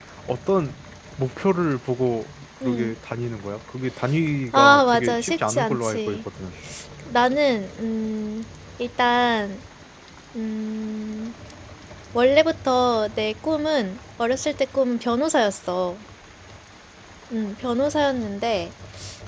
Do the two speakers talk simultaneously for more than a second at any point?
Yes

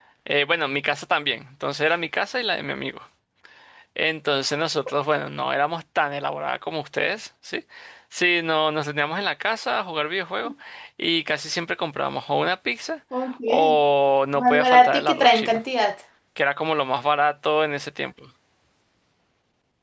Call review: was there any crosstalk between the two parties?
Yes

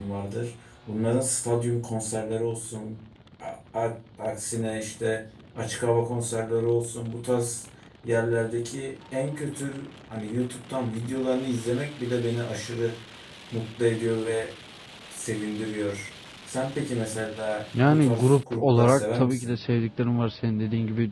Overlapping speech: Yes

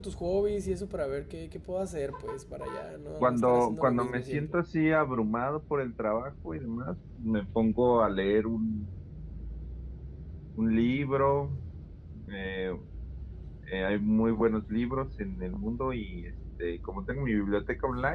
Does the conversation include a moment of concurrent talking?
Yes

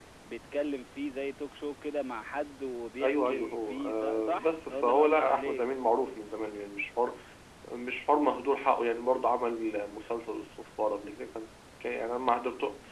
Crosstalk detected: Yes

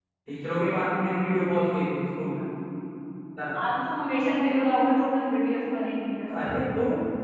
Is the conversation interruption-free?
Yes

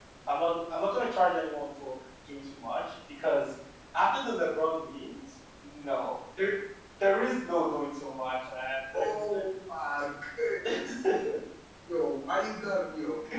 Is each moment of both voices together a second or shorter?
Yes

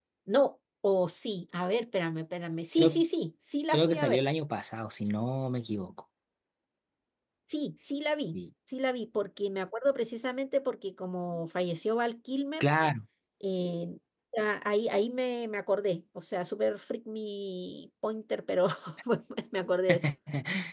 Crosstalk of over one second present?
No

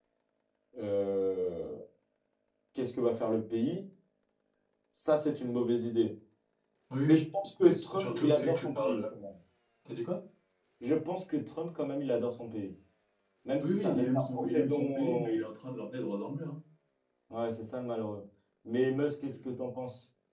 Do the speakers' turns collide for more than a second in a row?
Yes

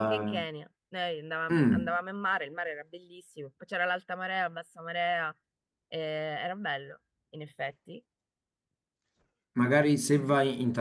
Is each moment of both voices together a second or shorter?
Yes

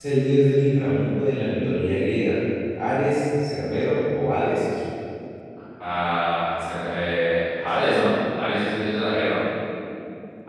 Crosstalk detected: No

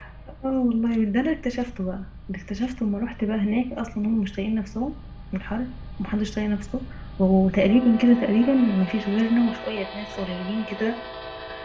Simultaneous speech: No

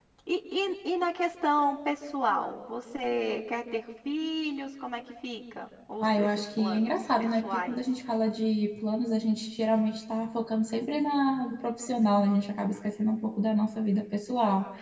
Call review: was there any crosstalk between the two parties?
Yes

